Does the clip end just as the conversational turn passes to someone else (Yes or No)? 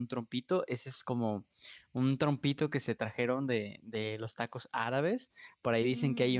No